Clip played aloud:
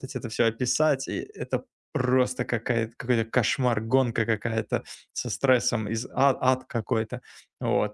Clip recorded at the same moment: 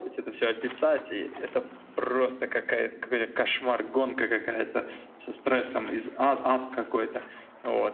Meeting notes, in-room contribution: none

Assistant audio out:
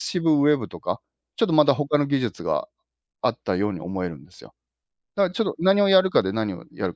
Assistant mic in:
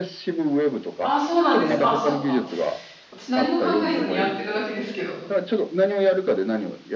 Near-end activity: present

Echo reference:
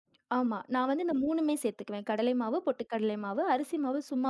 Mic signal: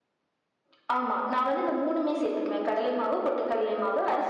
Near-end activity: none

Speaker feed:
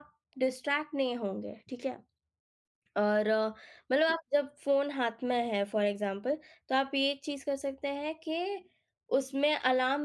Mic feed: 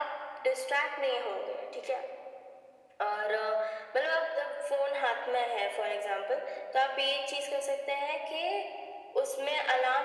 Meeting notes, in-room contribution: none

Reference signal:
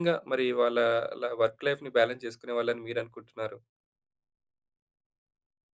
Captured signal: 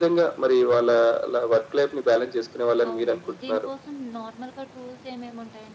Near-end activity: present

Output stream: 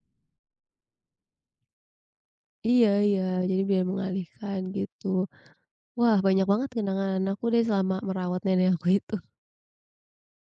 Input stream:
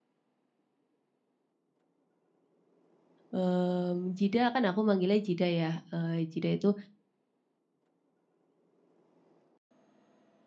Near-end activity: present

